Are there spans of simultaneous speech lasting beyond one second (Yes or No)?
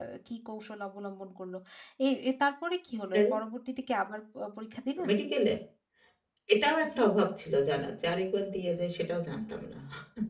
No